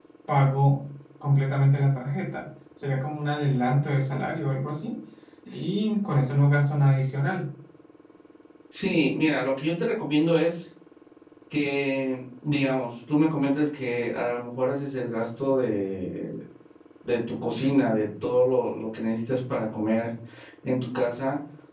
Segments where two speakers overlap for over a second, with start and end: none

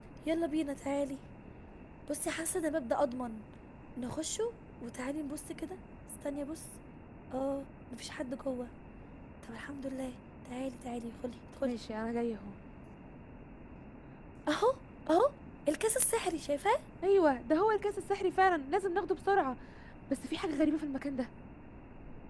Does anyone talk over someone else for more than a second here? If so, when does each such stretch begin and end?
none

